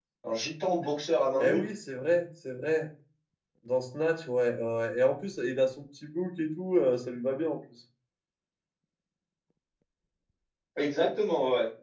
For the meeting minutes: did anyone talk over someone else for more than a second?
No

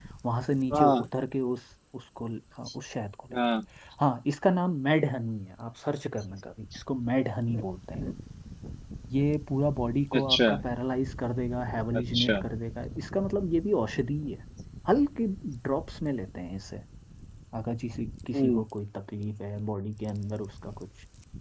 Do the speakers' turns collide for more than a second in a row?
No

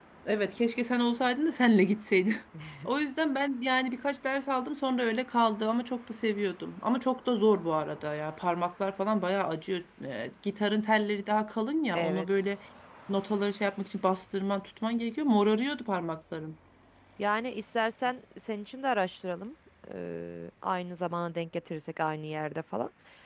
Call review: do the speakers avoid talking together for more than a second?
Yes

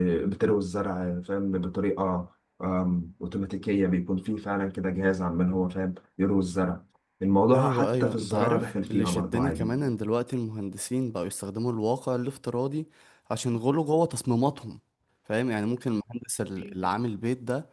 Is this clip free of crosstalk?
No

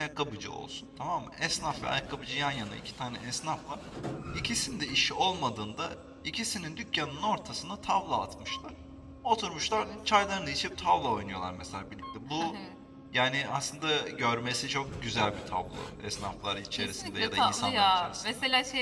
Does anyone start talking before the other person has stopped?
Yes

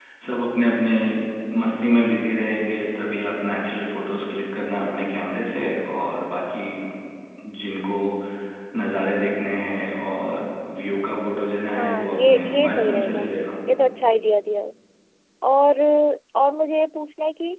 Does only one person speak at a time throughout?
No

